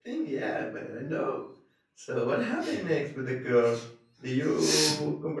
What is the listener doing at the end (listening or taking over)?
listening